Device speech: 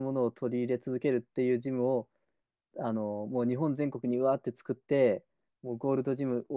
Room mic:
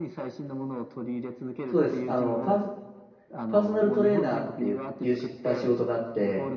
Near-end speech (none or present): present